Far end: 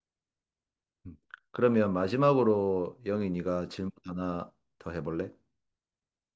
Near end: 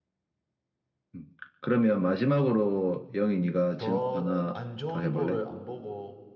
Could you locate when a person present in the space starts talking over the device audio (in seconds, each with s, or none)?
3.8 s